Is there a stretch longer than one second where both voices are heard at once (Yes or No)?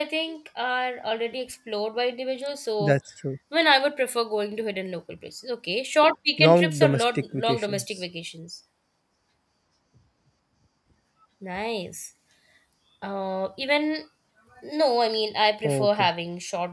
Yes